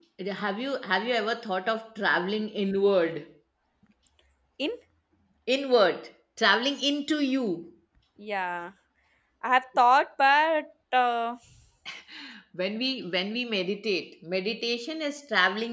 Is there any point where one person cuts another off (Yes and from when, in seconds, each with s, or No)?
No